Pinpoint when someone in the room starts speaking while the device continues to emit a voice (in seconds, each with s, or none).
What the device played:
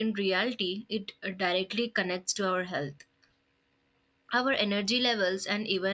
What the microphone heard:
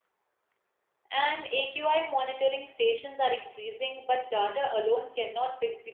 1.1 s